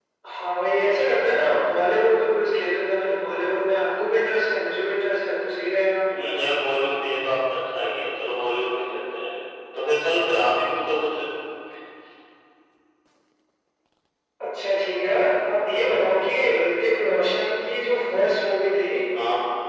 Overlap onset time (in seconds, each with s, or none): none